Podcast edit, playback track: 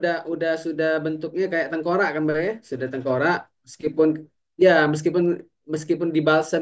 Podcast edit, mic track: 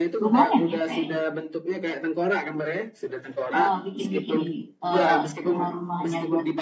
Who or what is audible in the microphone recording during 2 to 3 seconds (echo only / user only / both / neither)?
echo only